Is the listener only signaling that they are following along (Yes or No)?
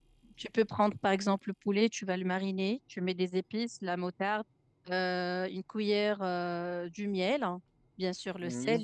Yes